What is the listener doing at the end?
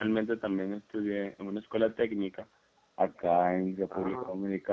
listening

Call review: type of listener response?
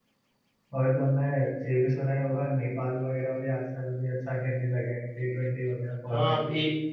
taking over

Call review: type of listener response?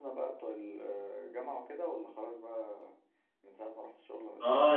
taking over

